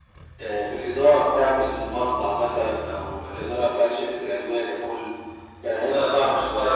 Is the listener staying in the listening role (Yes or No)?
No